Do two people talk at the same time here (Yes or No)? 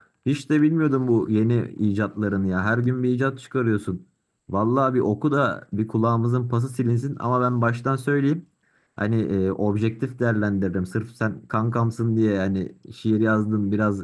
No